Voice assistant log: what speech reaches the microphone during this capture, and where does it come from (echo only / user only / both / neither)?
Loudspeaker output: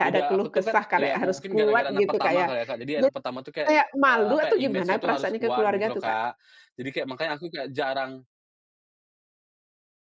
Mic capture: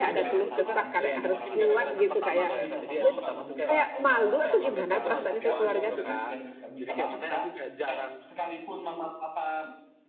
both